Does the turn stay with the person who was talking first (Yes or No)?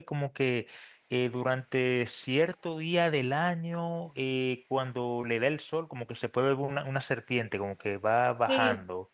No